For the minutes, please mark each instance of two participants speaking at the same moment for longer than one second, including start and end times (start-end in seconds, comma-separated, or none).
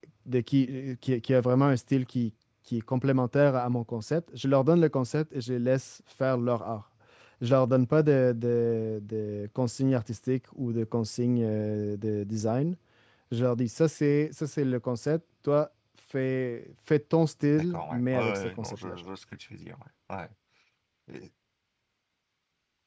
17.6-18.9